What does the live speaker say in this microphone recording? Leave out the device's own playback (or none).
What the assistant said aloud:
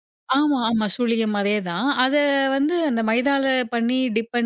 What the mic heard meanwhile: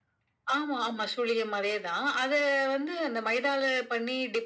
none